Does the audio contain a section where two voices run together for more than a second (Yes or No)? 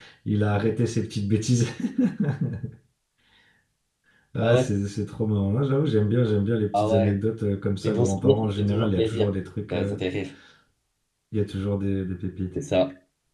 Yes